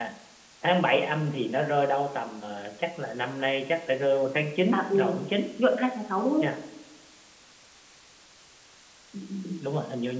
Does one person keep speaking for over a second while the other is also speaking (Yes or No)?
No